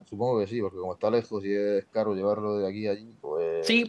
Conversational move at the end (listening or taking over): taking over